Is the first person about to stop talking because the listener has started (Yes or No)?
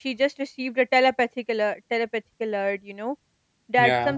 No